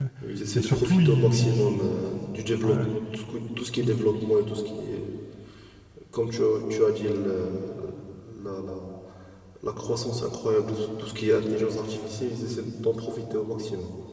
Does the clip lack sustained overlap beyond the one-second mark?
No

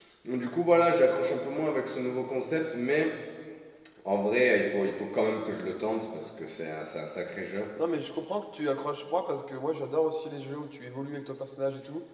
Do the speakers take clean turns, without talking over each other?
Yes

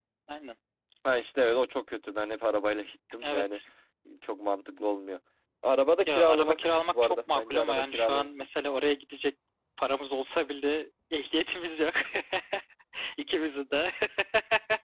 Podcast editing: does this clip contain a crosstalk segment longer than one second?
Yes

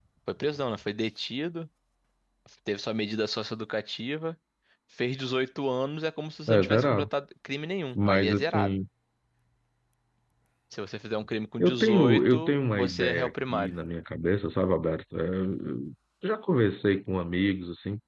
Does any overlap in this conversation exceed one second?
Yes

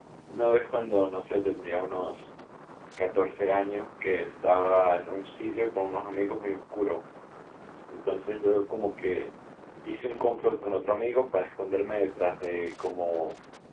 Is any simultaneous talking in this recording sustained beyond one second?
No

